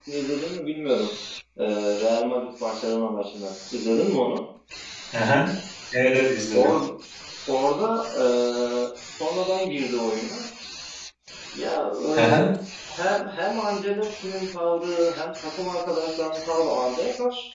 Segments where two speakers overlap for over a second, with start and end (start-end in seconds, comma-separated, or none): none